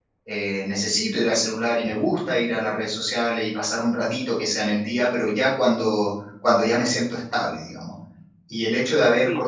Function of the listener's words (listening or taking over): listening